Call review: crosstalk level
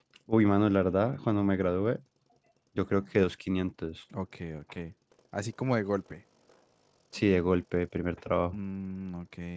none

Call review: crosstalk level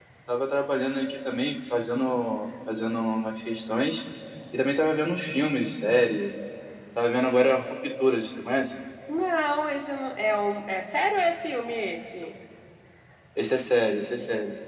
none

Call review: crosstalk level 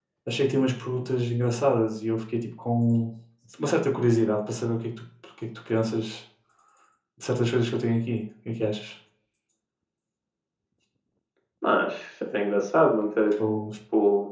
none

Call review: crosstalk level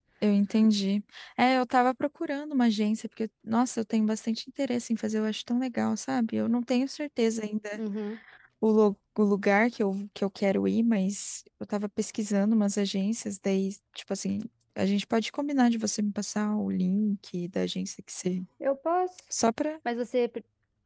none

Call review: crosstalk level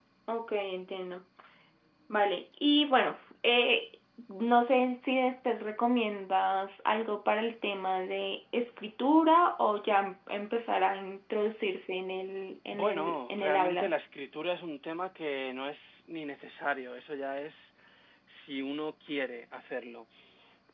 present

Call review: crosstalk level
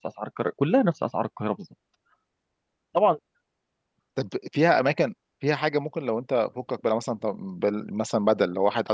none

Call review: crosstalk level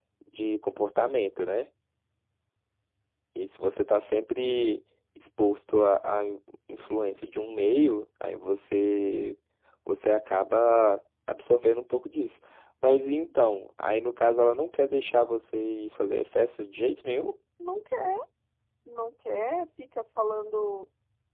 none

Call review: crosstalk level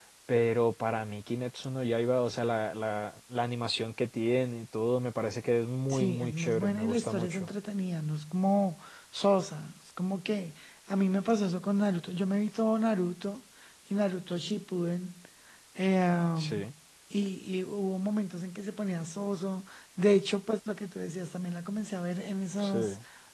present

